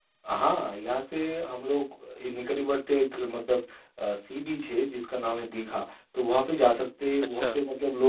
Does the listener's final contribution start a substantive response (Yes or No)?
No